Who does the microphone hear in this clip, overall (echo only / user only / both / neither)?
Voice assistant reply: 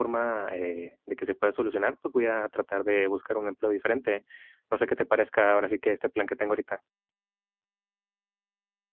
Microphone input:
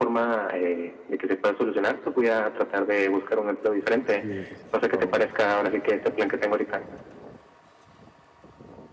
both